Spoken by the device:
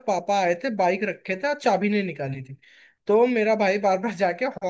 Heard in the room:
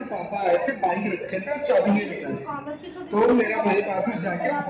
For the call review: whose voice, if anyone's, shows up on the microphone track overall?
both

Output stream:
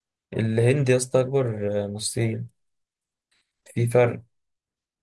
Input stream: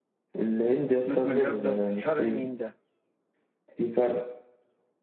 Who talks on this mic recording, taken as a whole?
both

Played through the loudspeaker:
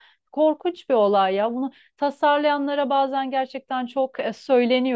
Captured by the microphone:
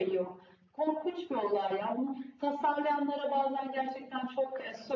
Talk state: echo only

